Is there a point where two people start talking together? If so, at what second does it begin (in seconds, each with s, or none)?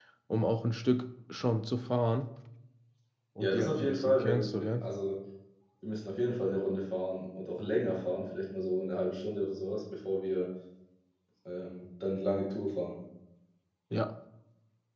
3.4 s